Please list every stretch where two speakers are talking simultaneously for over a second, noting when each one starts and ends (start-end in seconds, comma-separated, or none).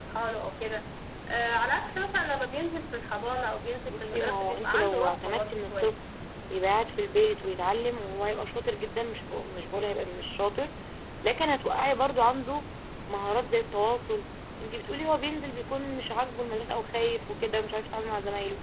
3.8-6.0